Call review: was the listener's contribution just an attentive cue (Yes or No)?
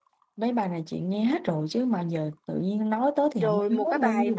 No